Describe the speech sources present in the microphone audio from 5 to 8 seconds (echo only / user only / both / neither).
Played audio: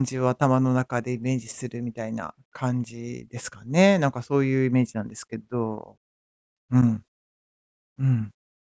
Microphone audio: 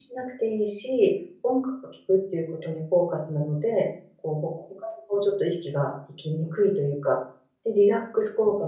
user only